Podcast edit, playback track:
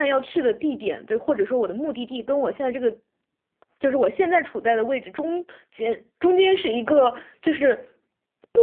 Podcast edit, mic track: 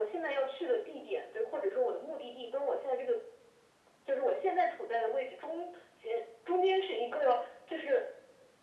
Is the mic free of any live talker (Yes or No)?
Yes